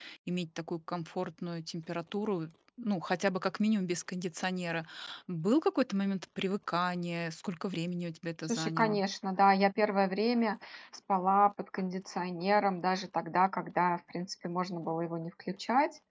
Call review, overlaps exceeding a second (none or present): none